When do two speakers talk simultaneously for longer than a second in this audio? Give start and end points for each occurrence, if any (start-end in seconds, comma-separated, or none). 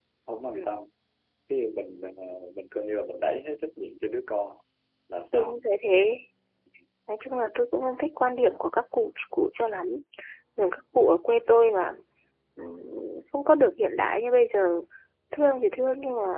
none